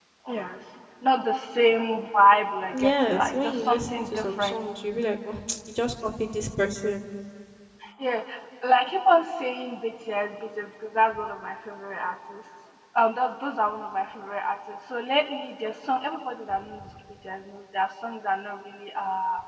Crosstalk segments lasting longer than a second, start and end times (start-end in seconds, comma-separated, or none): 2.7-4.6